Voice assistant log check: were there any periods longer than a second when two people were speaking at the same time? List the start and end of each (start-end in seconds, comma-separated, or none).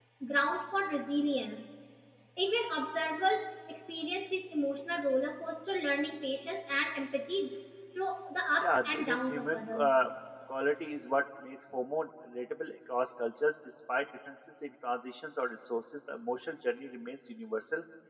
8.6-9.8